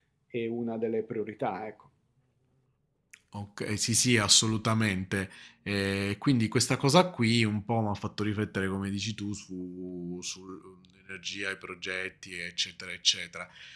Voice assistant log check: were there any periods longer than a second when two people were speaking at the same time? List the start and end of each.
none

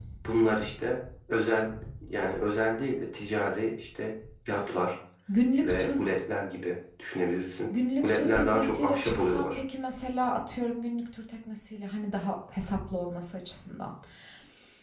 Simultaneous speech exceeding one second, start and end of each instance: 7.7-9.6

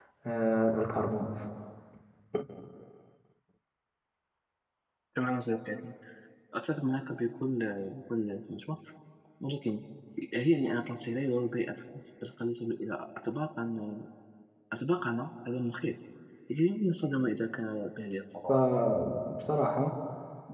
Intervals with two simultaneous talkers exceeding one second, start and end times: none

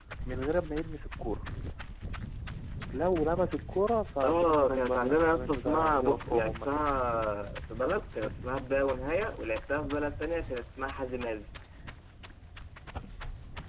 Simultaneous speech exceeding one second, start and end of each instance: 4.2-6.8

